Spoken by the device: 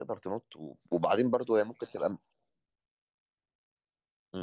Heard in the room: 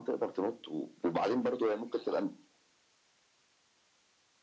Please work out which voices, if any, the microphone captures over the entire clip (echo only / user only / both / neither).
echo only